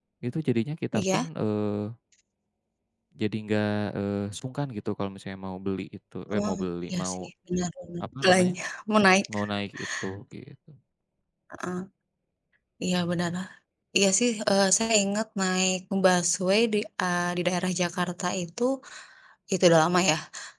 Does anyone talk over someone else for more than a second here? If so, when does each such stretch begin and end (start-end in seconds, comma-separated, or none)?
none